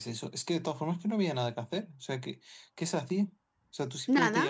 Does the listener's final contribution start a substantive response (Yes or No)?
No